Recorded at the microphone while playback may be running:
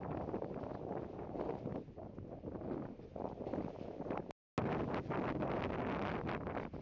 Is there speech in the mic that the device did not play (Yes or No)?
No